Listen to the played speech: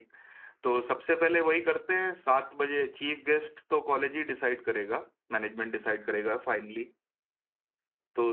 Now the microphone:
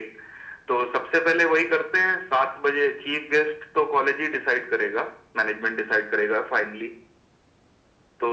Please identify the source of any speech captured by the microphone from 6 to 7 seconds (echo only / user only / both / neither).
echo only